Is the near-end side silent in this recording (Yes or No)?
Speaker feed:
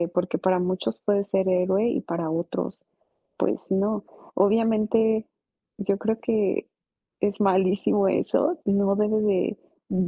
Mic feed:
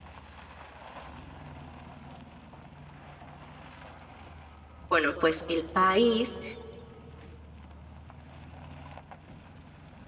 No